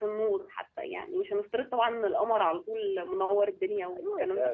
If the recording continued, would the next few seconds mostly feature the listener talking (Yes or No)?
Yes